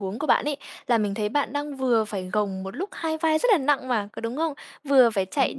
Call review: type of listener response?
listening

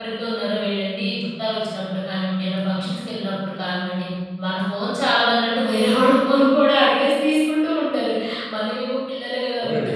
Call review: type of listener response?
listening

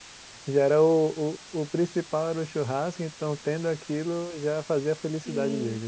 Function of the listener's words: taking over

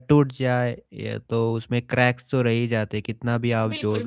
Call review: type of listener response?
taking over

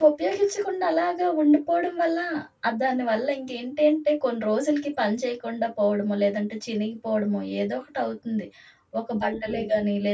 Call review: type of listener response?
listening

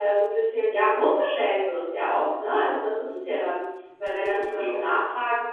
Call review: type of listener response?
listening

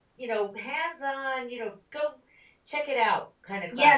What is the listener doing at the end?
taking over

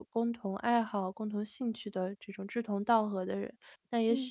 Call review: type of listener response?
listening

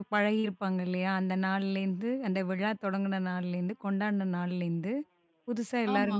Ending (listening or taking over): listening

